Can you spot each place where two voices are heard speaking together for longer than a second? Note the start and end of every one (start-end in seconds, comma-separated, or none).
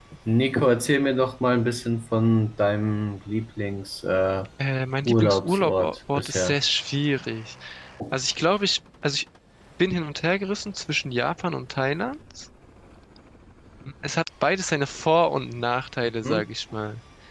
5.1-6.6